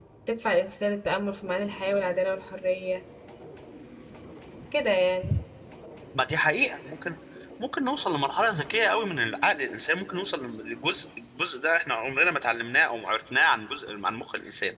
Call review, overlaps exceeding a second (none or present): none